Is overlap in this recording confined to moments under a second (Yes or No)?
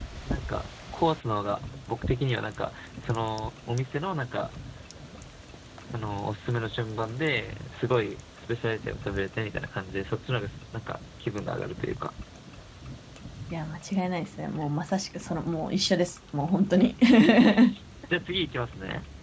Yes